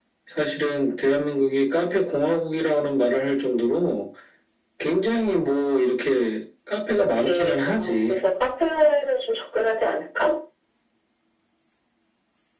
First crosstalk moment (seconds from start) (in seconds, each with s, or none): 7.0 s